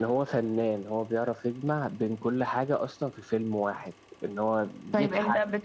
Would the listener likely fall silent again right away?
No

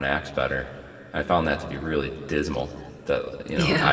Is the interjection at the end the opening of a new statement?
No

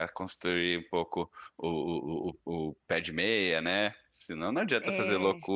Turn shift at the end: No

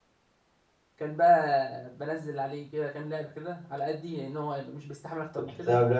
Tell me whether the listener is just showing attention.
No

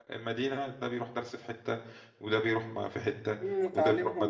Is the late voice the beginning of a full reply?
Yes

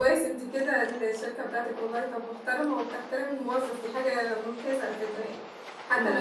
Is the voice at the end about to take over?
No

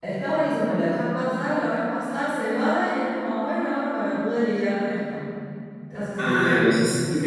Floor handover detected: Yes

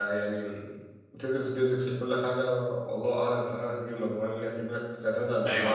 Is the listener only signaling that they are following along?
No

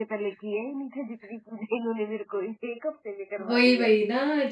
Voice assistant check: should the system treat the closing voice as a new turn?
Yes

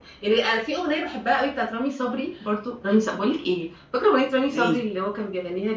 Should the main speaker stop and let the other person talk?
No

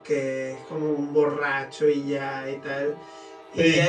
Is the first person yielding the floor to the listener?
No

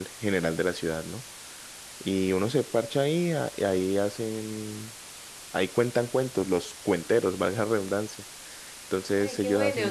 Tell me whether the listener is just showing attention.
No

